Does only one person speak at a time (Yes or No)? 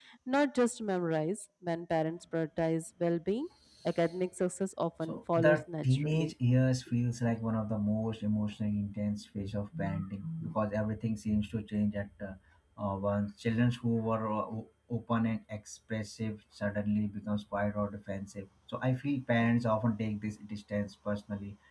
No